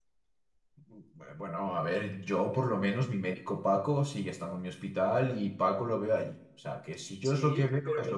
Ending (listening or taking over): taking over